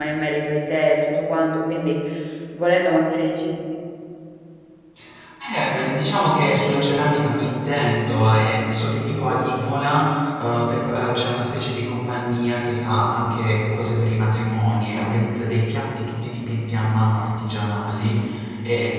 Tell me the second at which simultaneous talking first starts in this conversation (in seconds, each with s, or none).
none